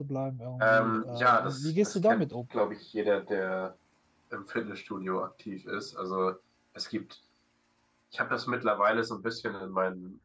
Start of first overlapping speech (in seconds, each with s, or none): 0.6 s